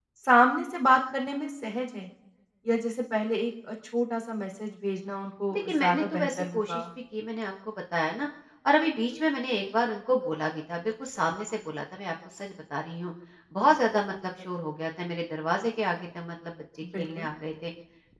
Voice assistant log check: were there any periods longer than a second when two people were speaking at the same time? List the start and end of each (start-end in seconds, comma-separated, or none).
5.5-6.8